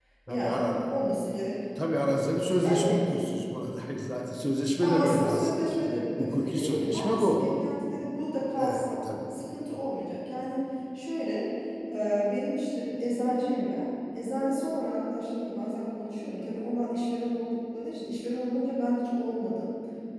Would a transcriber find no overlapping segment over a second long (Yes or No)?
No